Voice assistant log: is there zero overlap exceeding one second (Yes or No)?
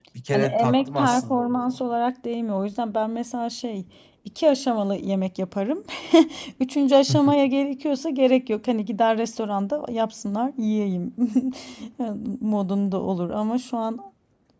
No